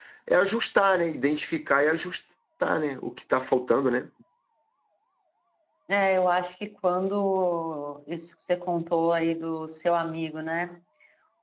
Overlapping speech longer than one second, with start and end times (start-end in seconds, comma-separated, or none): none